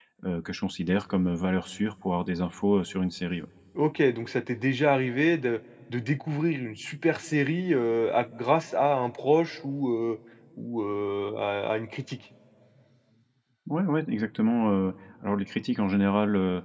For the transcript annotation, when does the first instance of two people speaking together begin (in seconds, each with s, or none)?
none